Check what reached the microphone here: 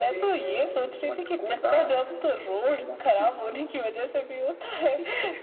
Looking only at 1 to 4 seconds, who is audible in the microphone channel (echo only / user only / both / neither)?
echo only